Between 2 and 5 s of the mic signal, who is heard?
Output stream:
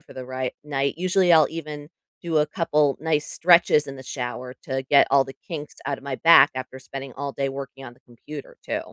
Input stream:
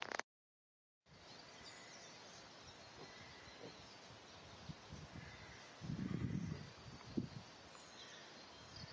neither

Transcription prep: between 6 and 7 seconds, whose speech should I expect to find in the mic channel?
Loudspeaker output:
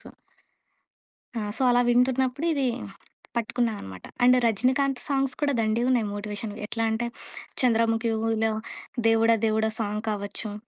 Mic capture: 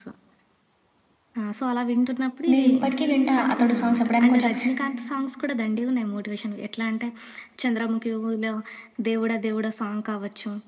echo only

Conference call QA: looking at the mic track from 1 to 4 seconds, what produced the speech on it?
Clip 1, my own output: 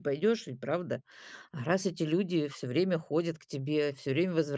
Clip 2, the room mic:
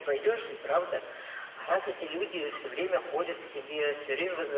echo only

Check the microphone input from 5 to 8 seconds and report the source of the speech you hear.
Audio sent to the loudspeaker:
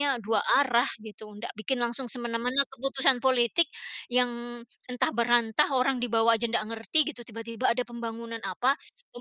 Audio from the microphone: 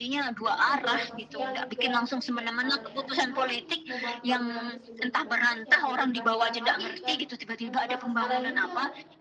both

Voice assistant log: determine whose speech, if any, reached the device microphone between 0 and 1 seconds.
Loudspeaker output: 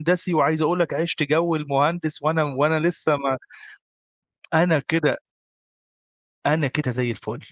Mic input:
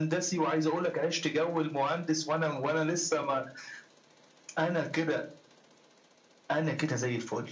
echo only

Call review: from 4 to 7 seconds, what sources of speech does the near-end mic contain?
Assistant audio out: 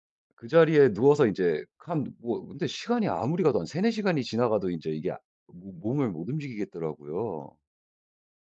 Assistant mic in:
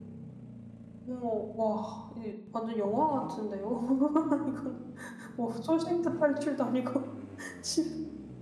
user only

